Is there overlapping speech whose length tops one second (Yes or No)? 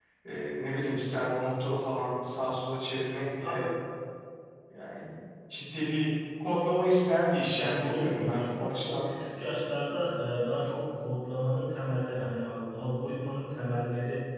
Yes